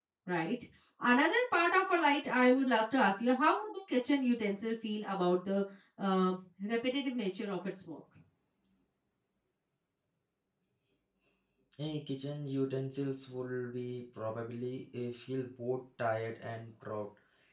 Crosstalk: none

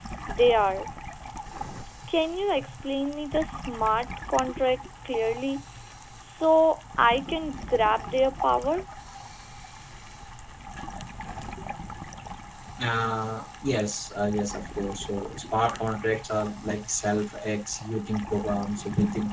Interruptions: none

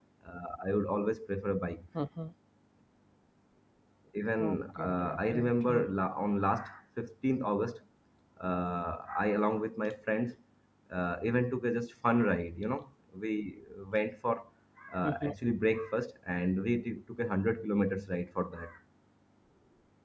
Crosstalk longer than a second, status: present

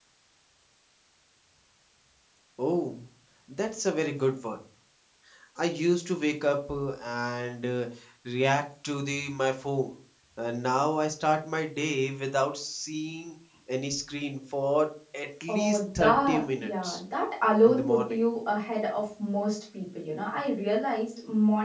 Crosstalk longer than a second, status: present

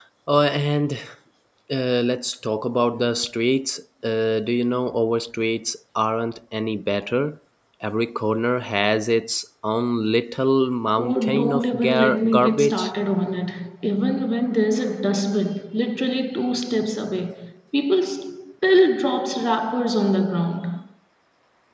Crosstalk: present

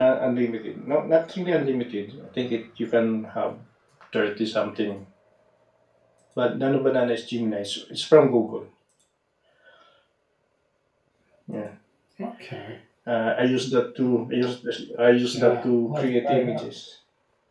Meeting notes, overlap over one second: present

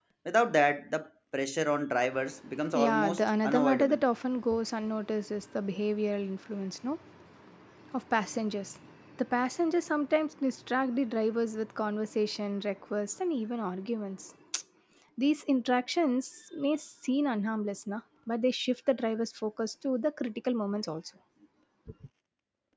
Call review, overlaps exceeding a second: present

